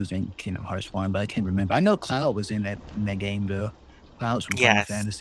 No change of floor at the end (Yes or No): No